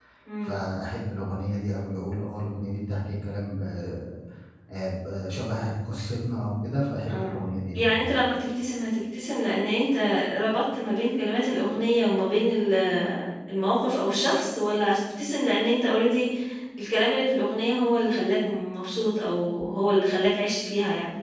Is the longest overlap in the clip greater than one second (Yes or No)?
No